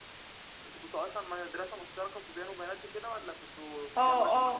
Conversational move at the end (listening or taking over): taking over